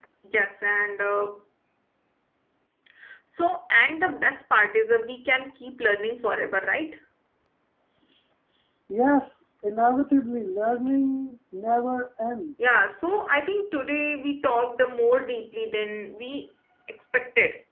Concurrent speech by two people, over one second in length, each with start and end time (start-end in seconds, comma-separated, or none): none